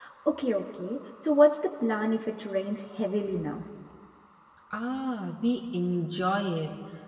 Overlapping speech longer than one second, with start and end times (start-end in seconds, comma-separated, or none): none